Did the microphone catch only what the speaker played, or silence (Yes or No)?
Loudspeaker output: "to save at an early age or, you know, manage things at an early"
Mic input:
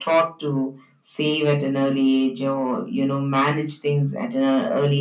Yes